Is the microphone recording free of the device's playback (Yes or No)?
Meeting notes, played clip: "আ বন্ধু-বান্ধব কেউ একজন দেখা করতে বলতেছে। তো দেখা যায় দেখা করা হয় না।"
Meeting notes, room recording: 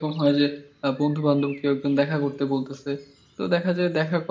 No